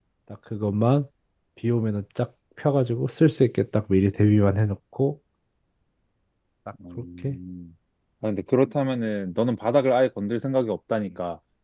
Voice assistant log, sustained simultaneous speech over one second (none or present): none